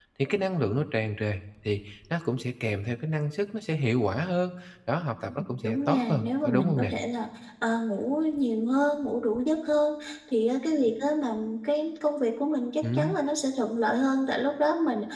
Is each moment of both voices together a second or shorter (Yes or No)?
No